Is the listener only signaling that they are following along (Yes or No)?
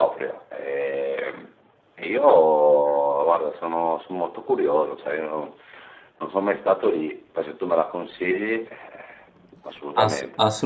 No